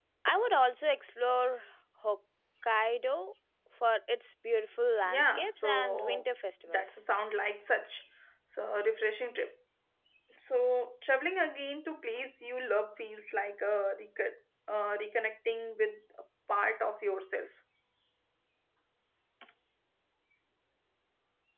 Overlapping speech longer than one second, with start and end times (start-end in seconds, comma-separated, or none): 5.0-6.2